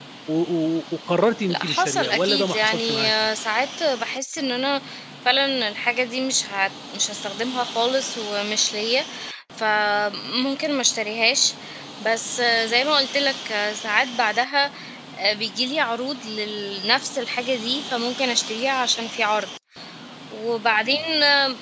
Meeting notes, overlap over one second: present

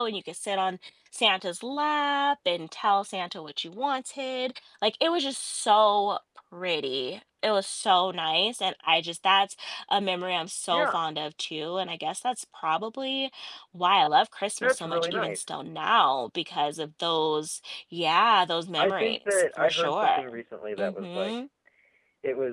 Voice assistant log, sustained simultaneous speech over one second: present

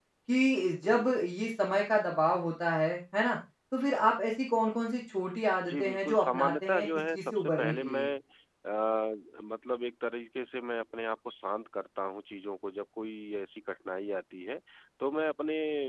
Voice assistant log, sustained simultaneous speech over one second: present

